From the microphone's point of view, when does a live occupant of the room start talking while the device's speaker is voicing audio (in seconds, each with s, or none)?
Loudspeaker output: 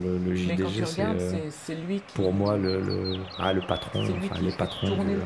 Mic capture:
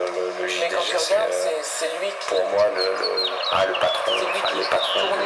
none